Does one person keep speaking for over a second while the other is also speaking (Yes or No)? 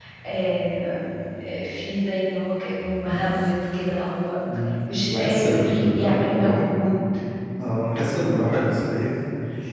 Yes